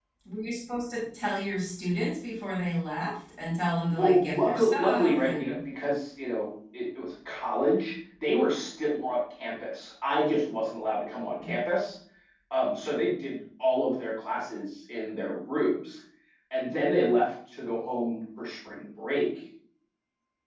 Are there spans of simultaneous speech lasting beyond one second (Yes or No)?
Yes